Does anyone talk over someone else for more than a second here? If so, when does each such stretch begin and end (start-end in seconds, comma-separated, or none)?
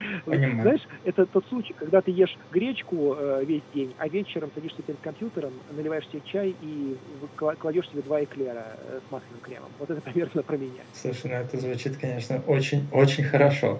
none